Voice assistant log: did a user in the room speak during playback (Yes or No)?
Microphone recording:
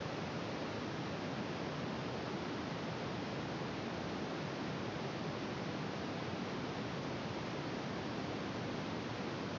No